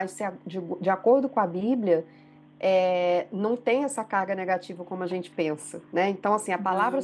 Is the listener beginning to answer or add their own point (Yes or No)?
No